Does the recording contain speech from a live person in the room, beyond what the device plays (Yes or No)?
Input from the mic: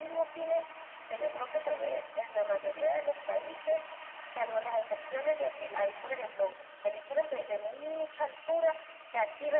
Yes